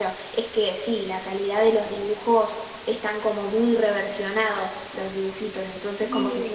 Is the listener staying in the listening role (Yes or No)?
Yes